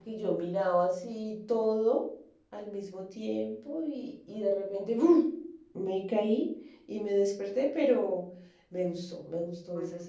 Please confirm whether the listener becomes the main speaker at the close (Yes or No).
Yes